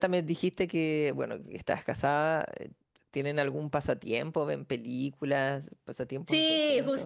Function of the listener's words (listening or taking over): taking over